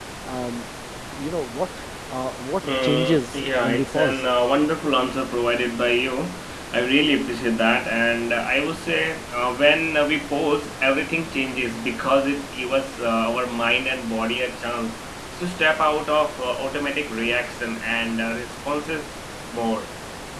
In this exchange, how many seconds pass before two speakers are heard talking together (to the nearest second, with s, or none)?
3 s